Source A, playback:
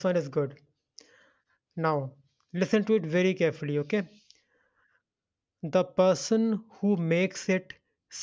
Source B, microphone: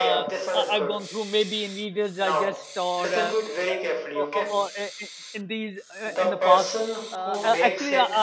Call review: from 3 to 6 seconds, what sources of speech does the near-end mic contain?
both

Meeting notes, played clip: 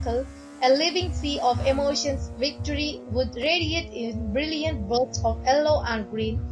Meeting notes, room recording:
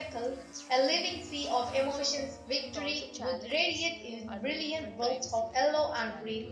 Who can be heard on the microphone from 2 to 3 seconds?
both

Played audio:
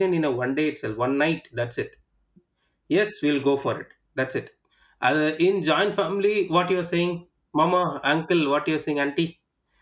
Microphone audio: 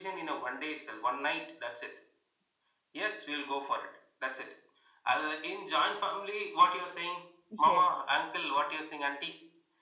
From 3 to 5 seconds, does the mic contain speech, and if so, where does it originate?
echo only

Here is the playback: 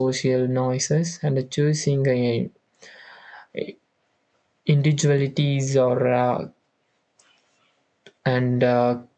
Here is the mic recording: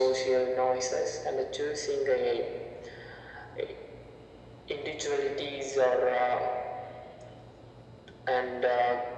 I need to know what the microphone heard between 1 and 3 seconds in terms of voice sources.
echo only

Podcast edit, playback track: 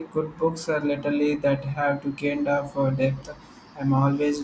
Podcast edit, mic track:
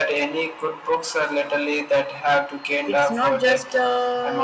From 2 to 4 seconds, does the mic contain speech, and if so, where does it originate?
both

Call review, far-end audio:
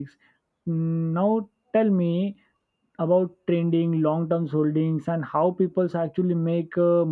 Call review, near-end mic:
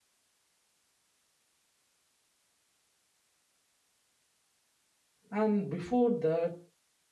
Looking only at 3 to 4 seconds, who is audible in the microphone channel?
neither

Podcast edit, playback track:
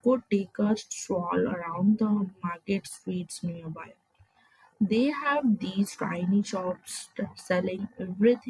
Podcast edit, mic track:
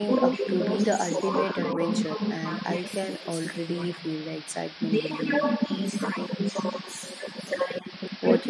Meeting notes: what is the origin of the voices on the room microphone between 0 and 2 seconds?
both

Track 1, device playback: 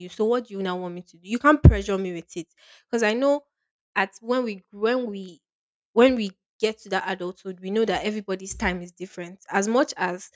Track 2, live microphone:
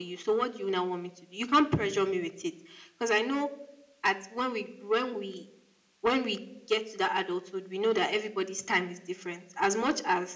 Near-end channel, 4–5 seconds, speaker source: echo only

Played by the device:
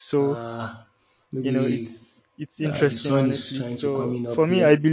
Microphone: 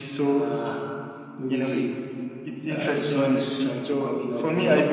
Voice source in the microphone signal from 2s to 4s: echo only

